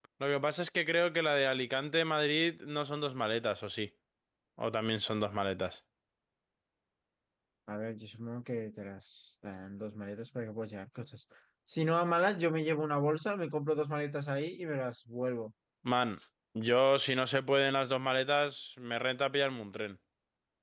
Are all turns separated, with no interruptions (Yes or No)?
Yes